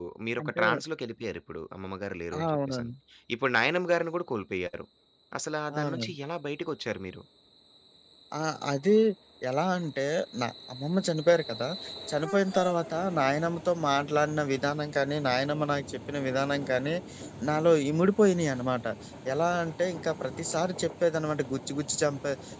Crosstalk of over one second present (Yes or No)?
No